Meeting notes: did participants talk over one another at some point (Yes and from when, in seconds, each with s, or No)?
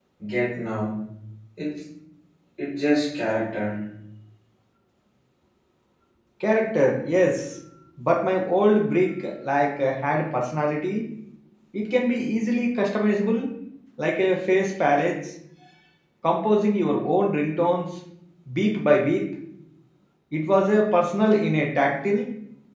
No